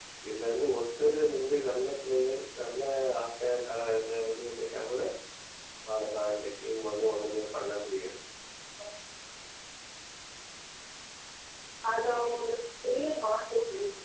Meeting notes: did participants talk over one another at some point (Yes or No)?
No